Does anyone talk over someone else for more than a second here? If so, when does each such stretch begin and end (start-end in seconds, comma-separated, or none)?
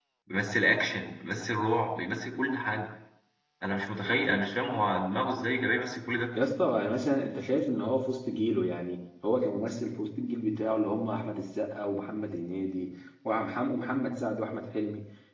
none